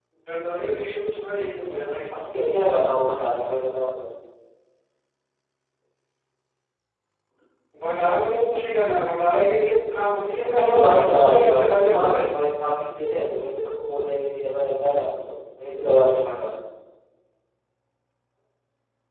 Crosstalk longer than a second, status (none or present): present